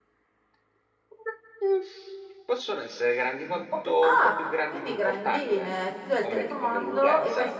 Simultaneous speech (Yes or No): Yes